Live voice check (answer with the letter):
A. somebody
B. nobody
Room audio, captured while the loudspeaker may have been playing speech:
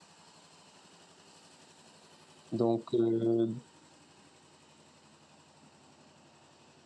A